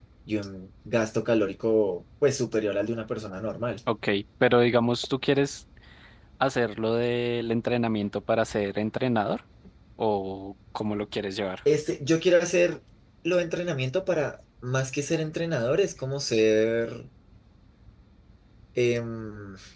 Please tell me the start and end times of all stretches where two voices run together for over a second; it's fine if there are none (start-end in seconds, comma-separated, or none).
none